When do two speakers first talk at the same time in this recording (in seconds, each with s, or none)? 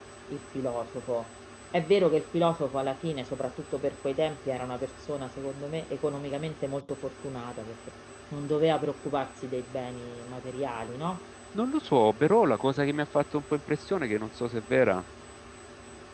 none